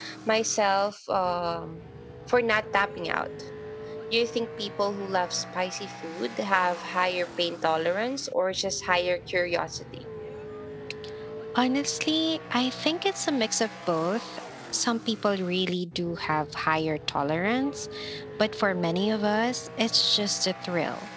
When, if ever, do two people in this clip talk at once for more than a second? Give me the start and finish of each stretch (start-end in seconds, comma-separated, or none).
none